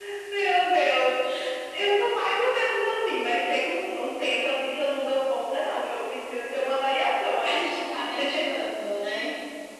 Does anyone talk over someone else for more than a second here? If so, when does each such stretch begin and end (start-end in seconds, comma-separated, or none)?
none